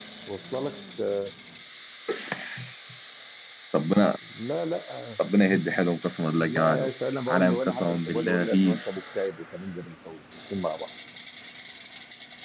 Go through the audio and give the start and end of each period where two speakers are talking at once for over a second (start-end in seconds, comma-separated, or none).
7.3-8.8